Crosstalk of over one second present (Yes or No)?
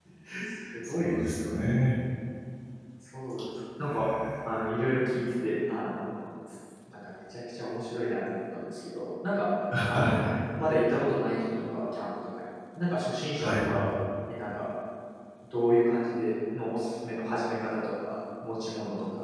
No